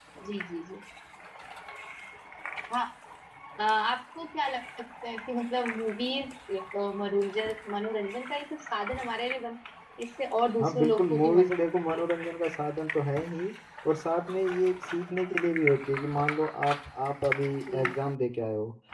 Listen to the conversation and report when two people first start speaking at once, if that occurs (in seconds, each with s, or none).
10.6 s